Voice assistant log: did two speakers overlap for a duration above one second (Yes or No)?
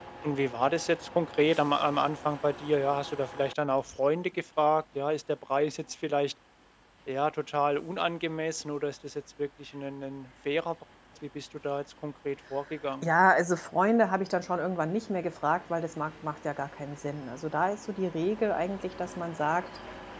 No